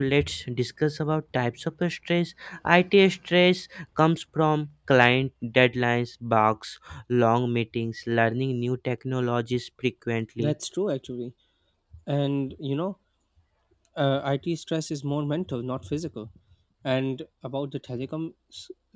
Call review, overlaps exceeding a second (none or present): none